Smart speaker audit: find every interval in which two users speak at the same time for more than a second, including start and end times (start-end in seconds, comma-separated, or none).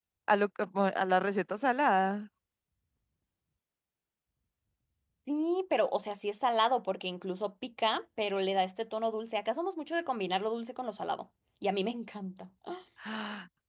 none